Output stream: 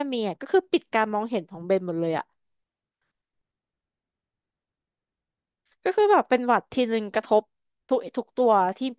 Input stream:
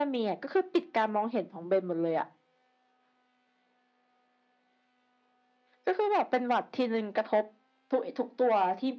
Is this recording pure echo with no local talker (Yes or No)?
Yes